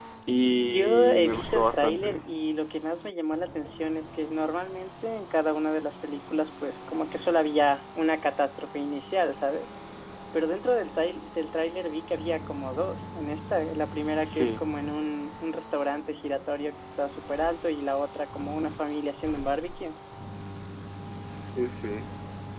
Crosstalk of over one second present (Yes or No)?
Yes